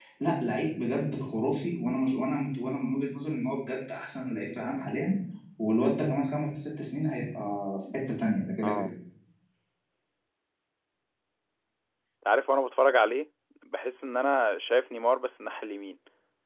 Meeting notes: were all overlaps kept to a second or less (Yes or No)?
Yes